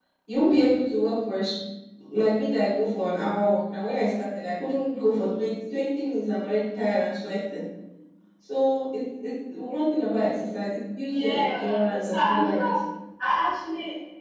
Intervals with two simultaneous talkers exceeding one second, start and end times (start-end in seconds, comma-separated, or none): 11.0-12.7